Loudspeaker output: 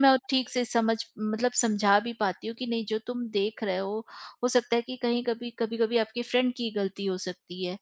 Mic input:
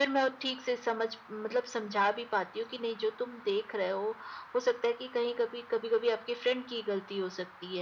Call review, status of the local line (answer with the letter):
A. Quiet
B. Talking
A